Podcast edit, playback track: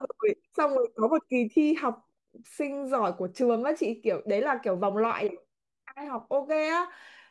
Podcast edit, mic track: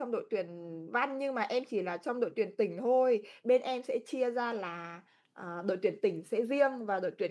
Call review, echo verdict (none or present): none